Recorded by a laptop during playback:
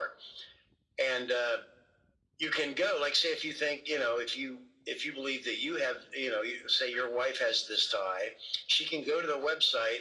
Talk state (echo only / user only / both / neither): echo only